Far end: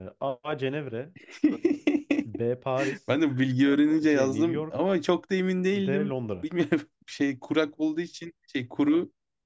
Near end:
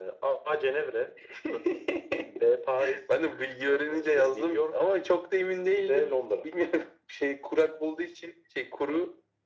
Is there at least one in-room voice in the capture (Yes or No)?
No